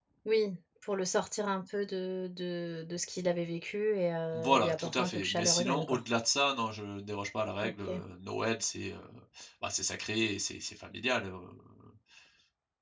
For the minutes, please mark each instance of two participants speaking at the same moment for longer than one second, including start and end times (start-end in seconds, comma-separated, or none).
4.3-6.0